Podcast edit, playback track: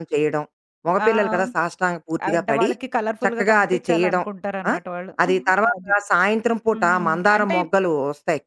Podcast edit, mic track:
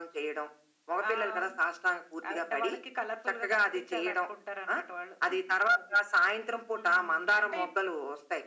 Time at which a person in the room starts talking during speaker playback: none

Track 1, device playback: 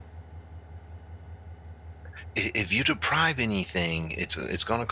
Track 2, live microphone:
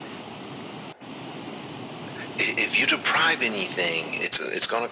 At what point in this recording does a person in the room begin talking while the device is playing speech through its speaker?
none

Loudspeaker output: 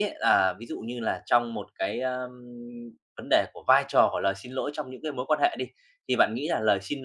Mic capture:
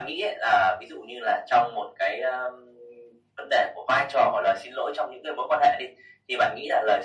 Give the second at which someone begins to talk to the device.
none

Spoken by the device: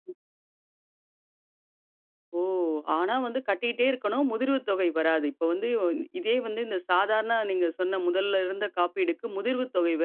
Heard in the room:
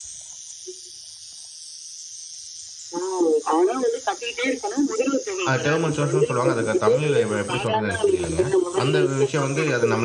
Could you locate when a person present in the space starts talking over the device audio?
5.5 s

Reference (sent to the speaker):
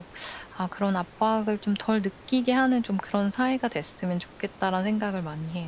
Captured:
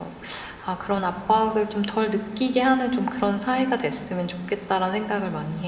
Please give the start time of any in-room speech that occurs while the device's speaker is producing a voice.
none

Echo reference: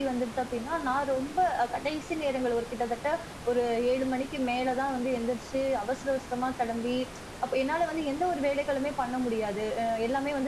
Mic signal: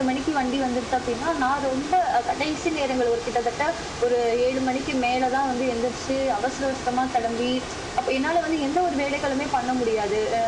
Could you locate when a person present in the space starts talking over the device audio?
none

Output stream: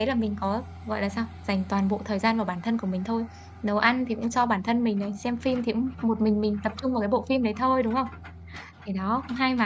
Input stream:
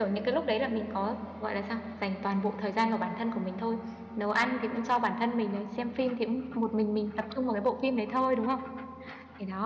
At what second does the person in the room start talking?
none

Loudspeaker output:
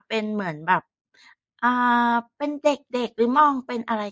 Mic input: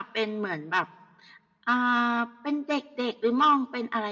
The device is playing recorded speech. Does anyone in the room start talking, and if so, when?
none

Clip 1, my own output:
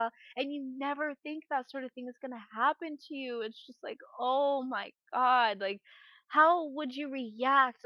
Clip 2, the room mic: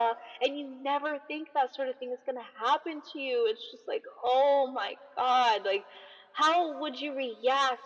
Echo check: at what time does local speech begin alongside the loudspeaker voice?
none

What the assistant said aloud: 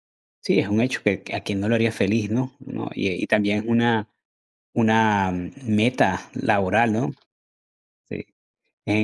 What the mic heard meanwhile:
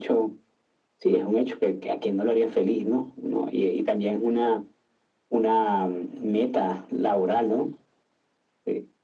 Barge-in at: none

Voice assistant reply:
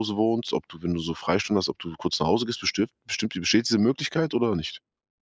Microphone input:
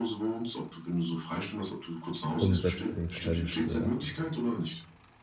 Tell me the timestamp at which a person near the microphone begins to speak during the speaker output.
2.4 s

